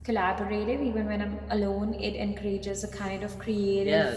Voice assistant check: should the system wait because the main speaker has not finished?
No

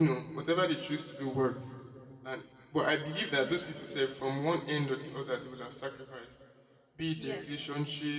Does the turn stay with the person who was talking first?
Yes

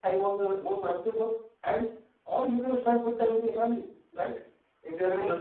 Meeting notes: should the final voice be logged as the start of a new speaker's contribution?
No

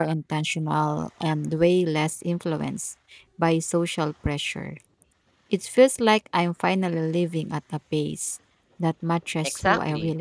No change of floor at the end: No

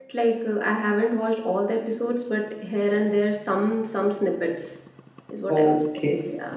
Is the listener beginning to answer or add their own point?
Yes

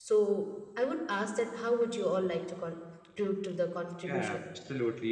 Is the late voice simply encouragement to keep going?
No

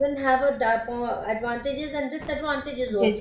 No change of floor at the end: No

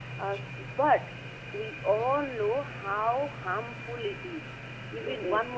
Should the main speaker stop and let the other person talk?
No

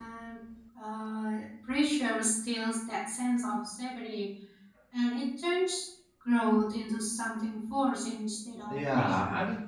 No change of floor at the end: No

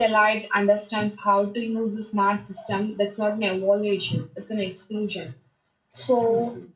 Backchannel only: Yes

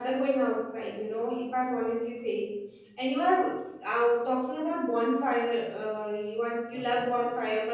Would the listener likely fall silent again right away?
Yes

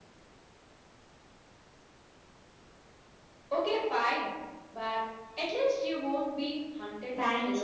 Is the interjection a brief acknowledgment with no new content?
No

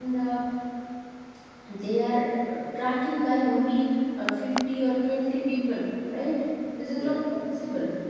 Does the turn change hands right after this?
No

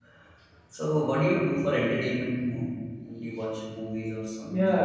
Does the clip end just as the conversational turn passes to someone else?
Yes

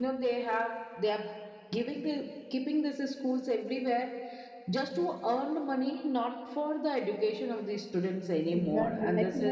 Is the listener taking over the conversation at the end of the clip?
Yes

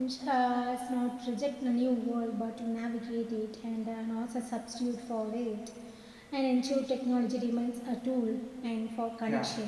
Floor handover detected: Yes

